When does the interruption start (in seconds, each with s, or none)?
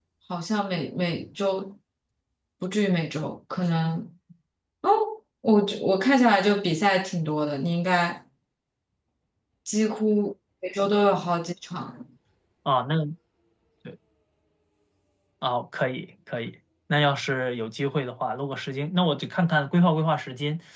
none